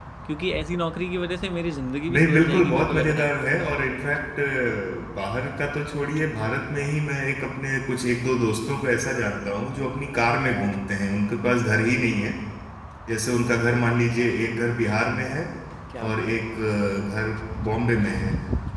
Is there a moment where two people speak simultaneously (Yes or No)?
Yes